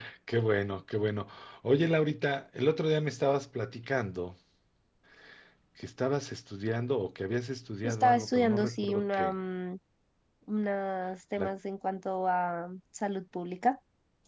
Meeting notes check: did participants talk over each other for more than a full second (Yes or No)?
Yes